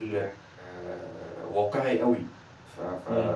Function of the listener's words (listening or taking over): listening